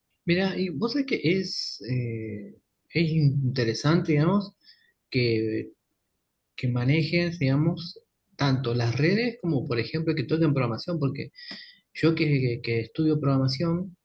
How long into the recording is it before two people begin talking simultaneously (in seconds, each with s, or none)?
none